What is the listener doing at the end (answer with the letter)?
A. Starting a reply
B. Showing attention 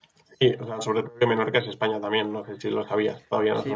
A